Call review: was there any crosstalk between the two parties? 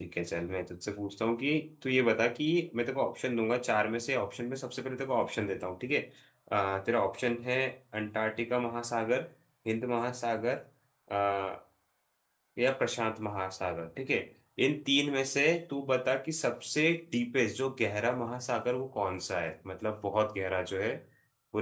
No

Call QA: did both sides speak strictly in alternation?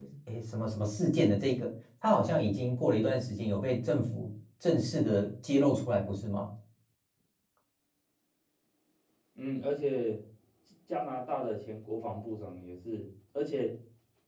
Yes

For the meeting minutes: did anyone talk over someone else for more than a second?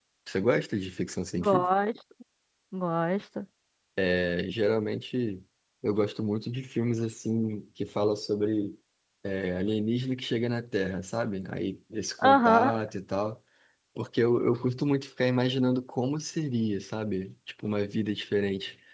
No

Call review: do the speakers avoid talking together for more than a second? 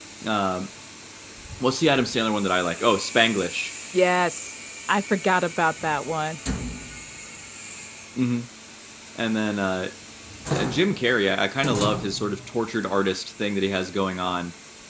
Yes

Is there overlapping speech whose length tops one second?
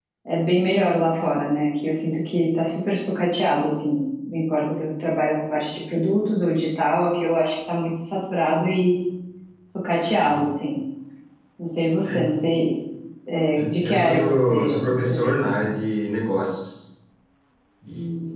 Yes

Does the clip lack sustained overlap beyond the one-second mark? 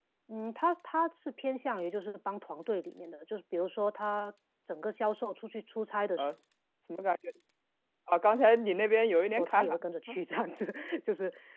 Yes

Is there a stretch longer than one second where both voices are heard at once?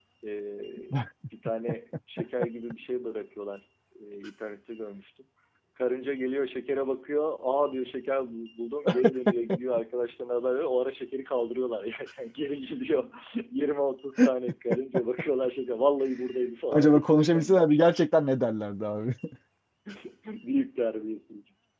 Yes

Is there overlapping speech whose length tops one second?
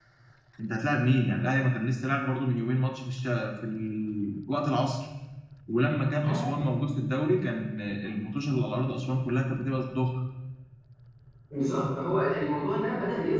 No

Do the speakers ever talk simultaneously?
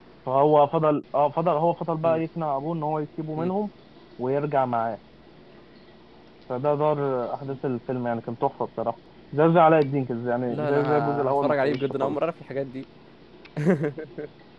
Yes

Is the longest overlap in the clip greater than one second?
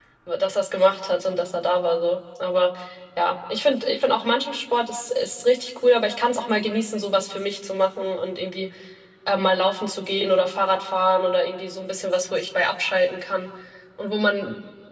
No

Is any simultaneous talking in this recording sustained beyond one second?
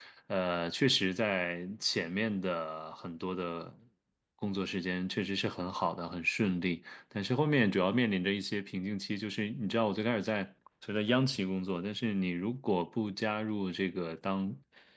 No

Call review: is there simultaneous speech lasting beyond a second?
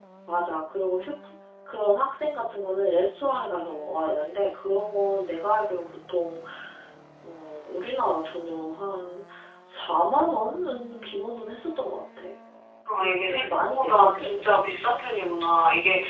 Yes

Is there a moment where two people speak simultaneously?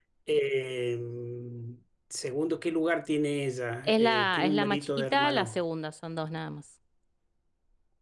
Yes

